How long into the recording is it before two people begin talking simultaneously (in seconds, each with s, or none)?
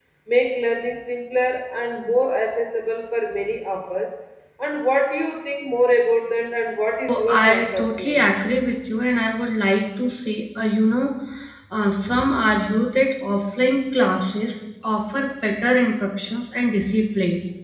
7.1 s